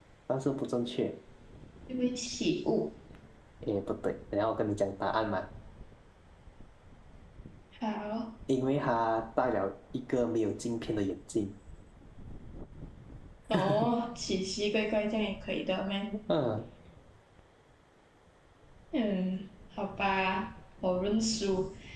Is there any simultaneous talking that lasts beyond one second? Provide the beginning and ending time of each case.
none

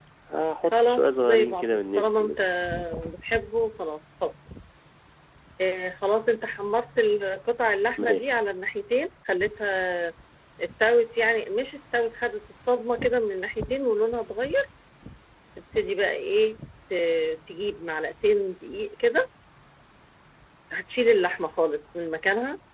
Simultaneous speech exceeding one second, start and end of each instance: 0.7-2.4

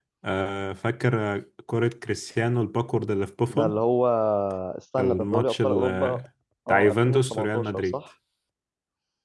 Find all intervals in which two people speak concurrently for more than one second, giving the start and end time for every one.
5.0-6.2, 6.7-8.0

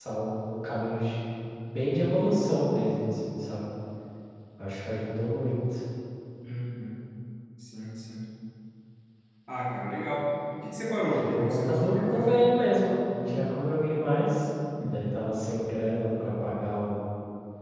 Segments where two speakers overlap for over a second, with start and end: 11.0-12.4

